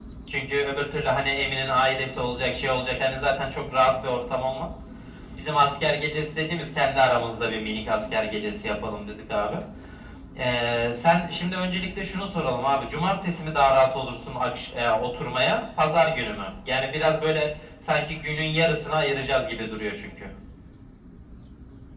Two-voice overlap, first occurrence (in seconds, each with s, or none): none